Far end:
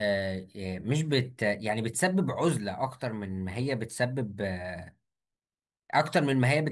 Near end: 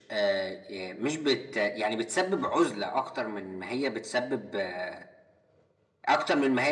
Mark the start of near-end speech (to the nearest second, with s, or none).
none